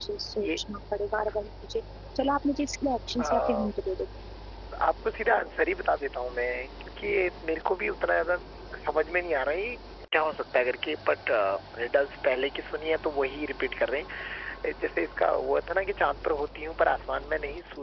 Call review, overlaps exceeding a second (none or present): none